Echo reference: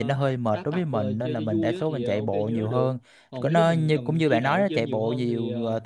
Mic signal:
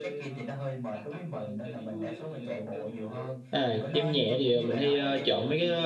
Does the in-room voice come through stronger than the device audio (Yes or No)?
Yes